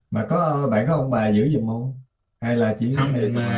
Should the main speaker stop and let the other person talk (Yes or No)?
Yes